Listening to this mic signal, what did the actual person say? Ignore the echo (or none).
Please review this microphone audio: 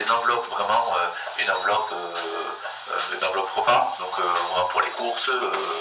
none